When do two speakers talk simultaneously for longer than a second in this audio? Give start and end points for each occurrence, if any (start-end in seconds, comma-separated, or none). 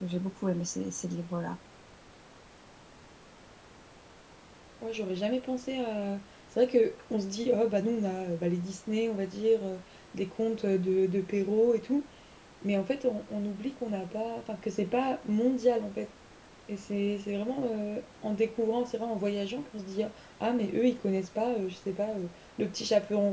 none